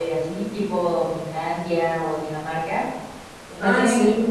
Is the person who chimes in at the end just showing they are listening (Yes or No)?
No